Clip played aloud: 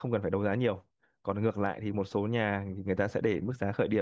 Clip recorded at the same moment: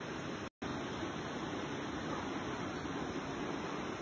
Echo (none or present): none